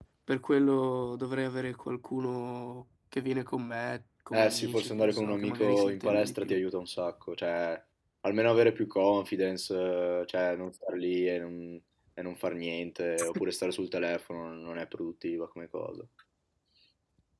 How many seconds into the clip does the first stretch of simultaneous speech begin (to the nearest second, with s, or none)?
4 s